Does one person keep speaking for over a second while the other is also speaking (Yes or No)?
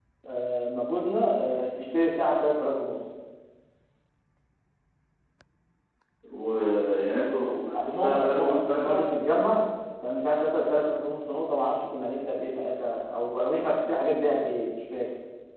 Yes